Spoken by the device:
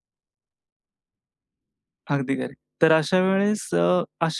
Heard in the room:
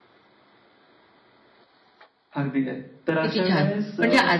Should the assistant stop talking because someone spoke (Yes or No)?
Yes